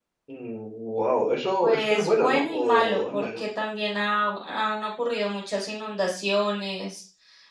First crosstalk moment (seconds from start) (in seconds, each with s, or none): 1.6 s